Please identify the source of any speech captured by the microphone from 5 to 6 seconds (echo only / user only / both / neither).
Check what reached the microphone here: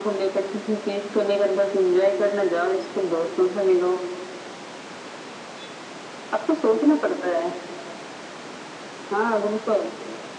neither